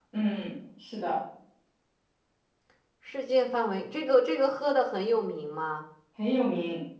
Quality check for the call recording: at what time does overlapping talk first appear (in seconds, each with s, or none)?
none